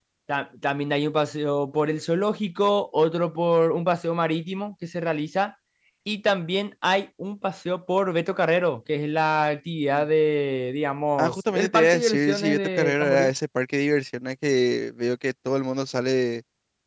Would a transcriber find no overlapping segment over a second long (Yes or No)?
No